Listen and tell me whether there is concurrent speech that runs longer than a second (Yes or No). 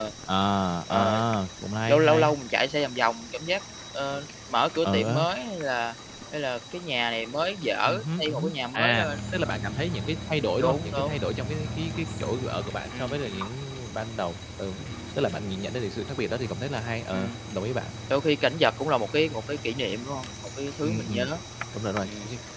Yes